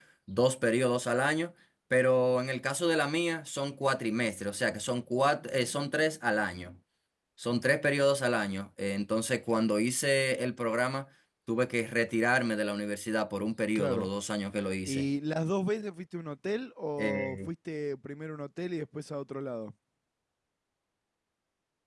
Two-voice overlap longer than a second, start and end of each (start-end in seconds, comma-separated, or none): none